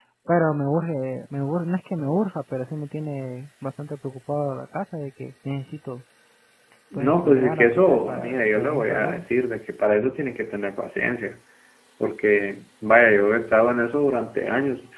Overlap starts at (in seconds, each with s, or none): 7.0 s